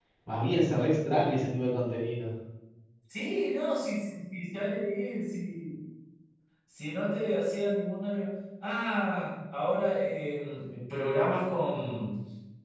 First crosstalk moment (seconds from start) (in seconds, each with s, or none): none